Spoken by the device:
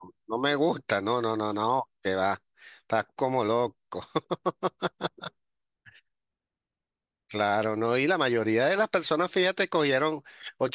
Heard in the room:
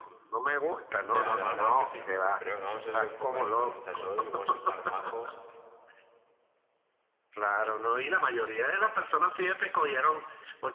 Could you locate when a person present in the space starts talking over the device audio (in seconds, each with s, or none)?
1.0 s